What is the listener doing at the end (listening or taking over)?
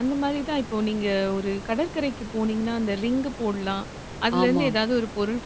listening